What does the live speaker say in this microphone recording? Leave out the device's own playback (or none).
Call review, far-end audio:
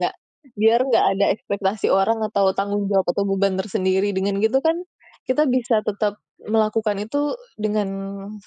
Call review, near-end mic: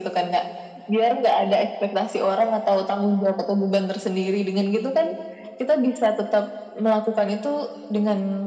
none